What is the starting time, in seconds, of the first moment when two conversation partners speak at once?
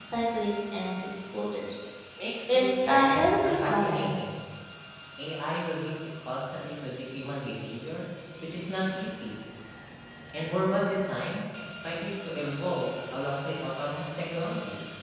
2.5 s

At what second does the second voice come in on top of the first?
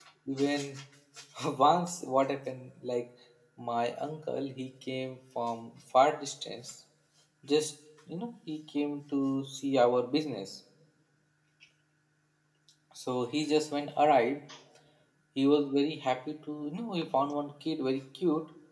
none

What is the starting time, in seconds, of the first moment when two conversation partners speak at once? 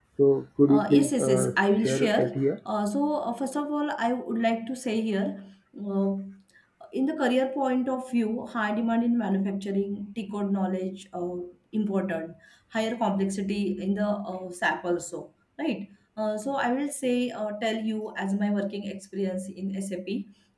0.7 s

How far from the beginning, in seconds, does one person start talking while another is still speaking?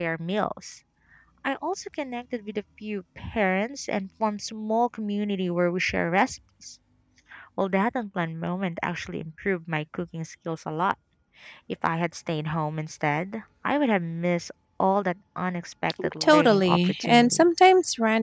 16.0 s

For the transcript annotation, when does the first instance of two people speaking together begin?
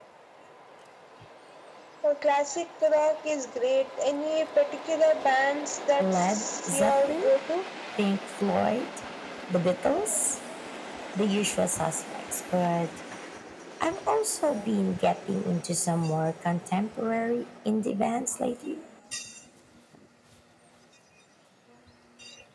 6.0 s

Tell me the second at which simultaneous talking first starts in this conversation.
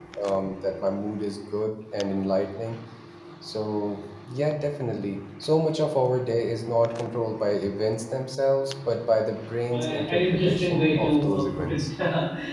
9.7 s

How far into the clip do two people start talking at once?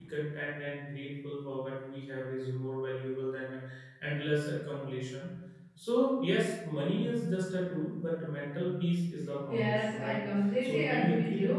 9.5 s

